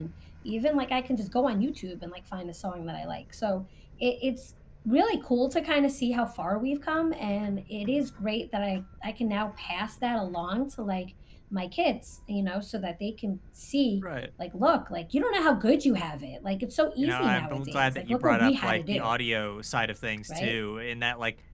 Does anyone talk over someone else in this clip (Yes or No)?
Yes